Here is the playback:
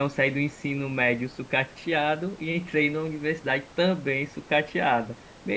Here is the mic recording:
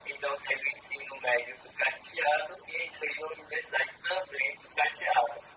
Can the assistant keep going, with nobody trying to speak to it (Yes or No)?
Yes